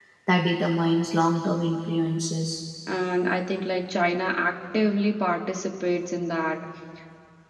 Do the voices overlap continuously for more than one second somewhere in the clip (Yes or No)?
No